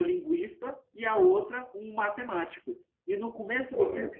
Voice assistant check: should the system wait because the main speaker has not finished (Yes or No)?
Yes